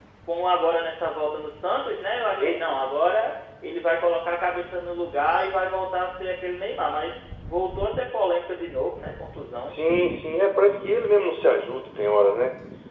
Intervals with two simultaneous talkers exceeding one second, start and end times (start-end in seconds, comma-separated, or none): none